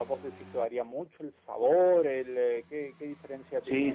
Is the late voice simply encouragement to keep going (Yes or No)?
No